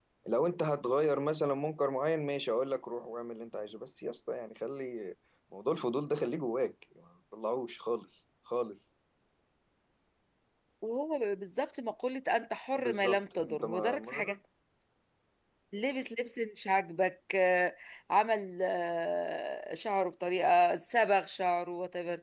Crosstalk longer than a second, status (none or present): present